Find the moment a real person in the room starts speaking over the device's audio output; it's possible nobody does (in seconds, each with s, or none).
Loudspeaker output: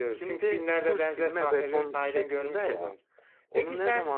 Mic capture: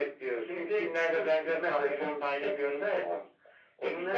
none